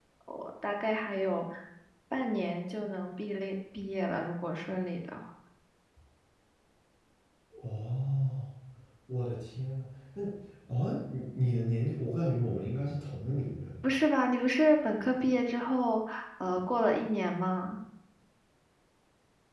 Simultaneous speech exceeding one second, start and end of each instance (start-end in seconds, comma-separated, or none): none